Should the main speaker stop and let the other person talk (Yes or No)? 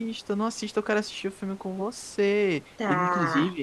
No